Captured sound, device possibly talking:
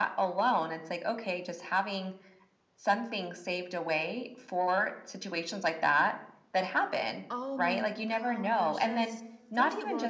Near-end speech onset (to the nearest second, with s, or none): 7 s